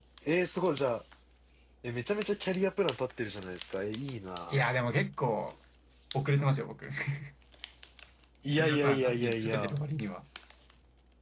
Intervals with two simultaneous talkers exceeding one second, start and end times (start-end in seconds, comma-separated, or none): 8.6-9.8